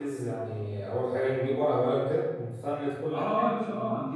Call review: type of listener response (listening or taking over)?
taking over